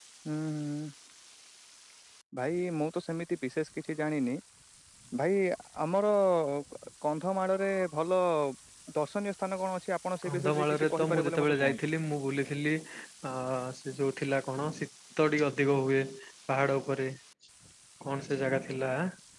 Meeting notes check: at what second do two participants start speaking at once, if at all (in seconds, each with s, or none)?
10.2 s